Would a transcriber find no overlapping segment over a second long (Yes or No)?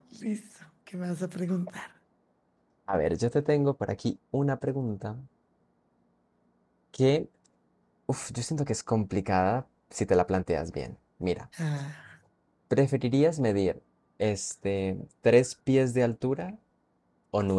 Yes